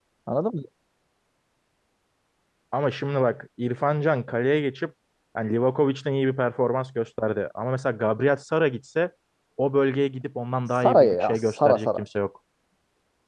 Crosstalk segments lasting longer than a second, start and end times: 10.7-12.0

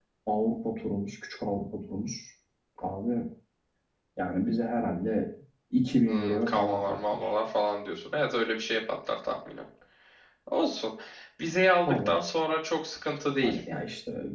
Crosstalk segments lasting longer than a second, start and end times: 6.1-7.3

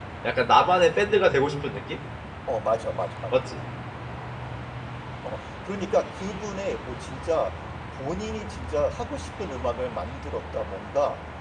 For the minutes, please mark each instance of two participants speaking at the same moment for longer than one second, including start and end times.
none

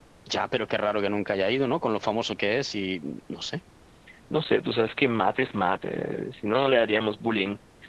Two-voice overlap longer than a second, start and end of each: none

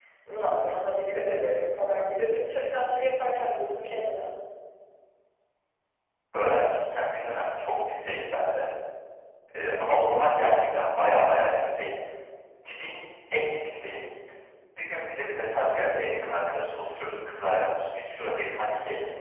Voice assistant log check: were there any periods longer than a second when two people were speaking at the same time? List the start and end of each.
none

